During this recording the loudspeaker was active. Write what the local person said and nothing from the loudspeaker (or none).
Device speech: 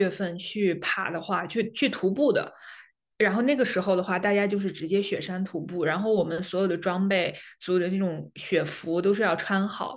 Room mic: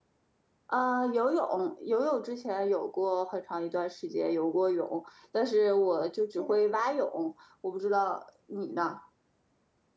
呃，游泳游泳之前有过很长一段时间游过泳，但是我就只嗯会蛙泳，我不知道你呢。